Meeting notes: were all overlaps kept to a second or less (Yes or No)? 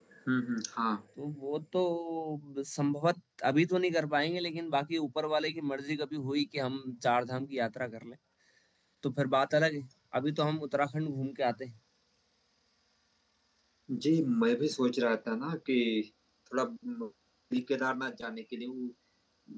Yes